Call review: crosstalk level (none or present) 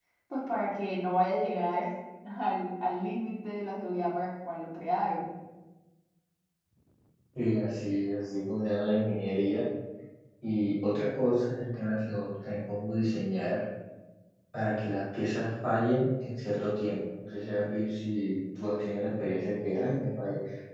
none